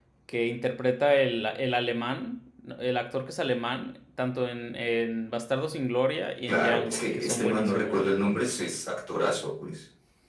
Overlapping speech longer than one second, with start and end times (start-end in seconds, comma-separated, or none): 6.5-8.0